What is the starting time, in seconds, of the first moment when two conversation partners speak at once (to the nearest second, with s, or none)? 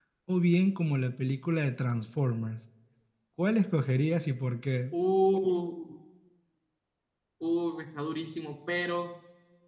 none